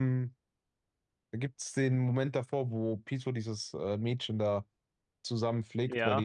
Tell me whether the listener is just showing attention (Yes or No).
Yes